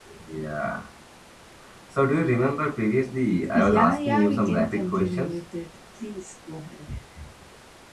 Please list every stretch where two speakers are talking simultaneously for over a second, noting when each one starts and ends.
3.5-5.3

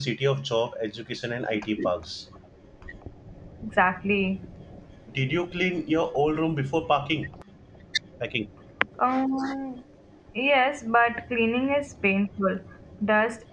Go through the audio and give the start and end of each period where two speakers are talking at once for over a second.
none

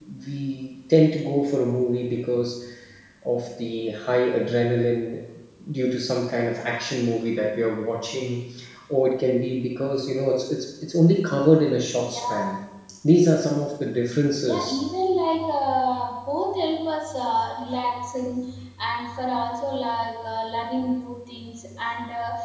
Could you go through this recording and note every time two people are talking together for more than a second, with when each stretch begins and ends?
none

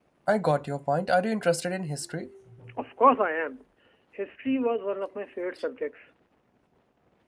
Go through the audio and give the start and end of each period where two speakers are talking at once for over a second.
none

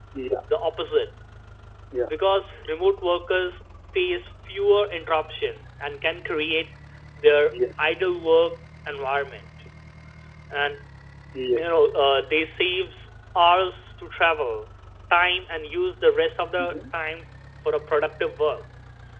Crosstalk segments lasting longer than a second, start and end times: none

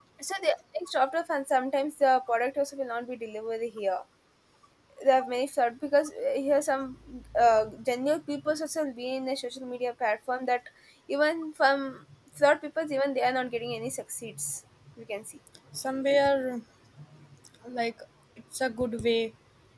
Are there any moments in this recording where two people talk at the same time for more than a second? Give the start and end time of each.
none

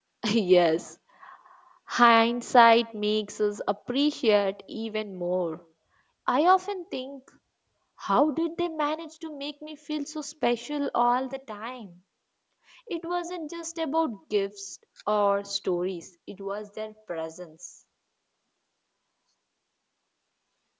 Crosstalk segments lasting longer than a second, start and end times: none

